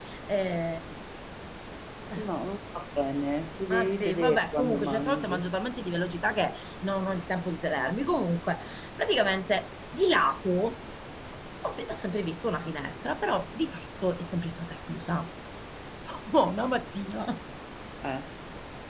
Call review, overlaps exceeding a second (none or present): present